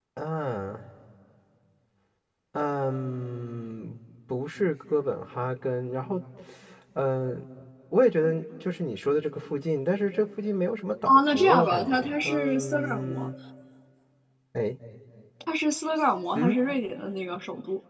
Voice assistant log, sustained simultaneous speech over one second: present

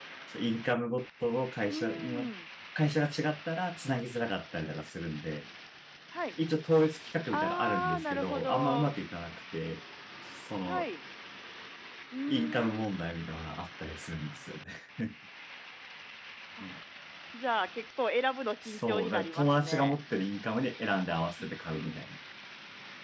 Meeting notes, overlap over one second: present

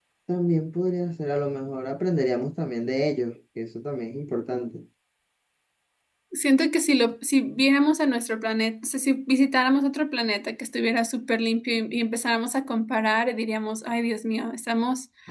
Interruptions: none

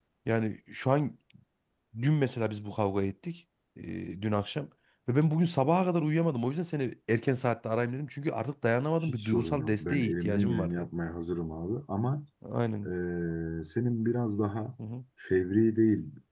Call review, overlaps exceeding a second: present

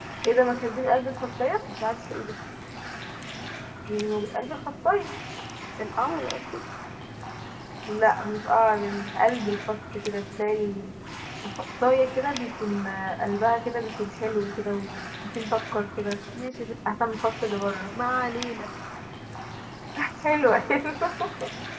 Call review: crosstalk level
none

